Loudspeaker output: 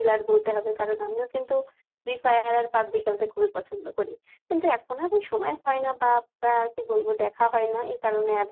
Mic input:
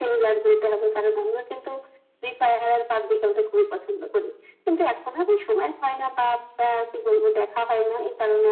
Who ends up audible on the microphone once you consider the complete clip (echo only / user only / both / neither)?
echo only